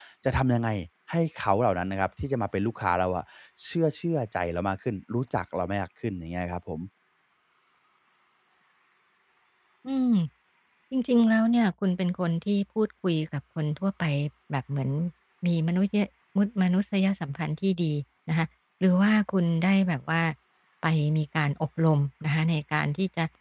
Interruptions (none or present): none